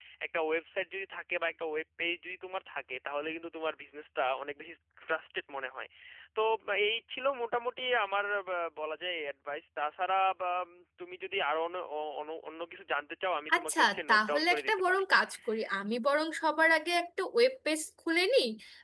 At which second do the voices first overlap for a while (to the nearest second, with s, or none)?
13 s